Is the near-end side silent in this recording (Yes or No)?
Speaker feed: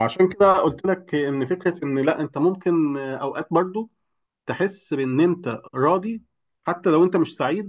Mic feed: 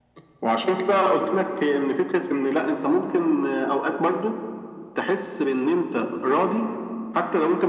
Yes